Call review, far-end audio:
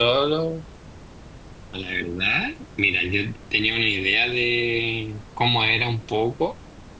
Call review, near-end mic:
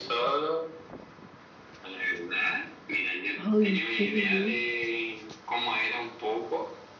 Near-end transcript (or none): Ay, sí.